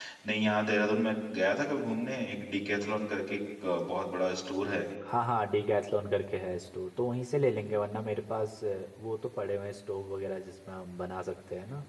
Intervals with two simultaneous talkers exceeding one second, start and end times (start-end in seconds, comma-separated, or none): none